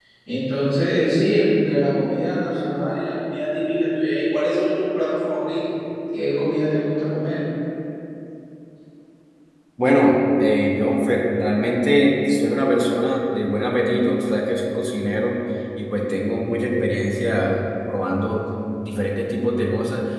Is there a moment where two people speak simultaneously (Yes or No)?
No